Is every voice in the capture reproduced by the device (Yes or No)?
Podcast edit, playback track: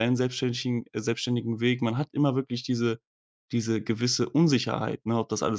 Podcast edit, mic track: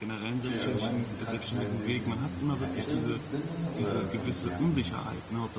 No